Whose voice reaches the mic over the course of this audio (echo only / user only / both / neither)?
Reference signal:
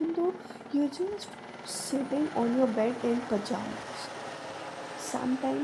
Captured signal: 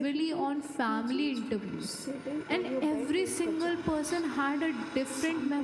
both